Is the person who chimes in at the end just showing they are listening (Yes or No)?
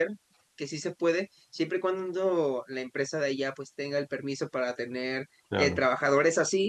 Yes